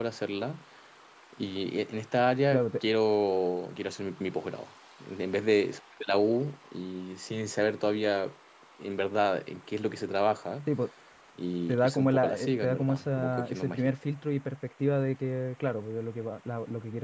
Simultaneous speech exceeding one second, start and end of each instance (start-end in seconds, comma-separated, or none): 11.7-13.9